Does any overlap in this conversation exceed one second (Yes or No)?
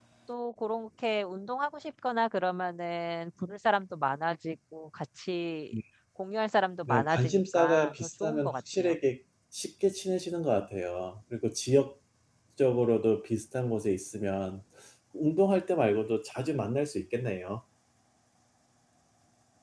Yes